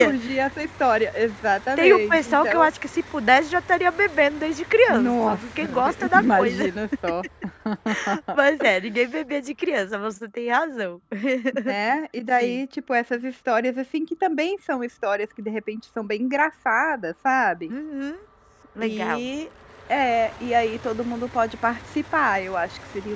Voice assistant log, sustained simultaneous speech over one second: present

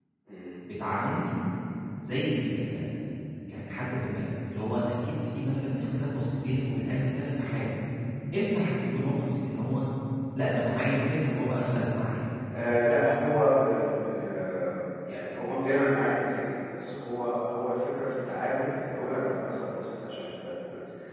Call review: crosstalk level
none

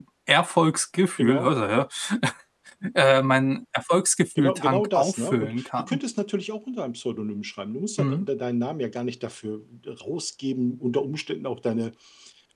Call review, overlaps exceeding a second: present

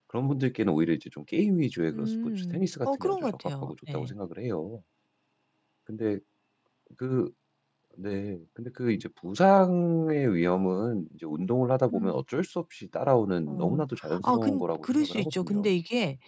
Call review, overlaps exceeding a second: present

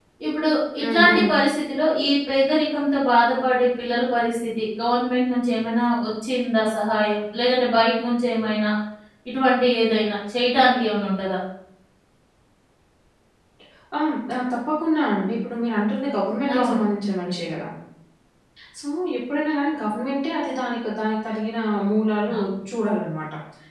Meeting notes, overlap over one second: none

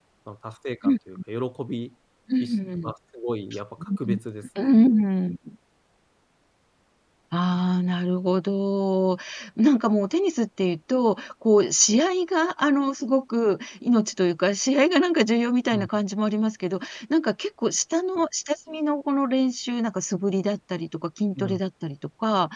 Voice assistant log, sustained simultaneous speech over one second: none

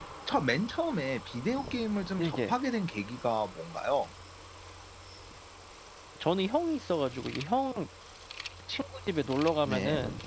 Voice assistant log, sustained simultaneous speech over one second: none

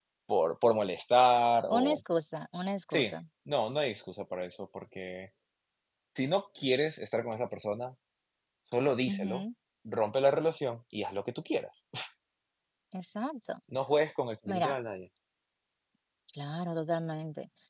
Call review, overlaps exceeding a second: none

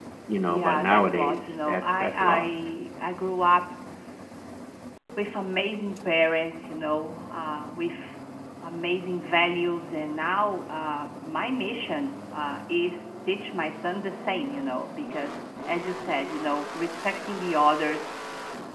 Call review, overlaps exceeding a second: present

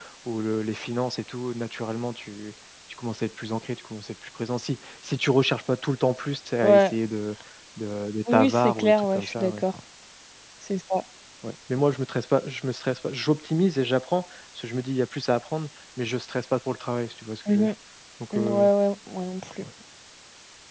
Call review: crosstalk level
present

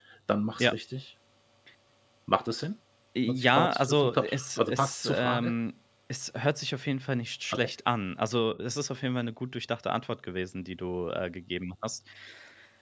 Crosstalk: present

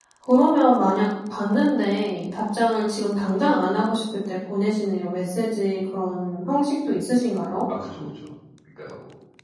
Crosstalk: none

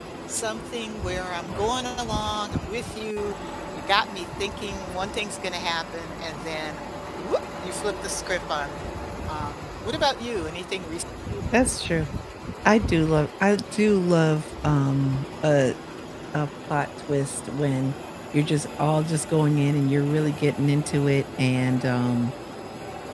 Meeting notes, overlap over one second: none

